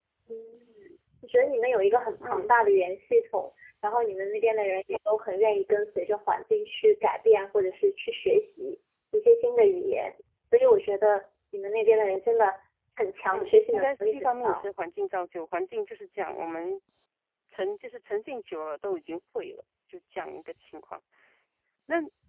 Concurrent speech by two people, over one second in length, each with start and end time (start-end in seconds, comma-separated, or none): 13.3-14.7